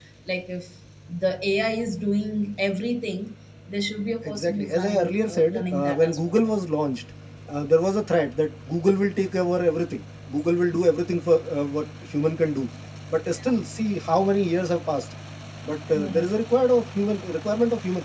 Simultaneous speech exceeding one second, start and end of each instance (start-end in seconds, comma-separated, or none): 4.2-6.5